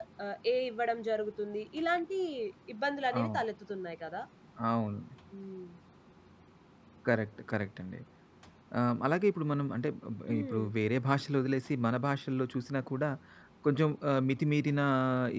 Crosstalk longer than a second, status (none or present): none